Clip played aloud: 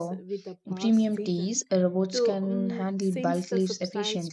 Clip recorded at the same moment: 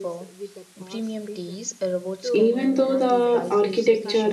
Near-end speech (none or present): present